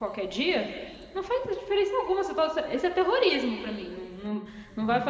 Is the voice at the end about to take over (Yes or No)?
Yes